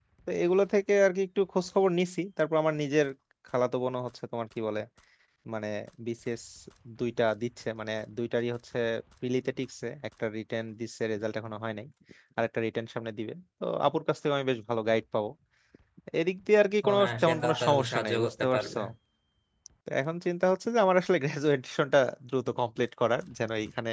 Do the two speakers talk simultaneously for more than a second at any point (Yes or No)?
Yes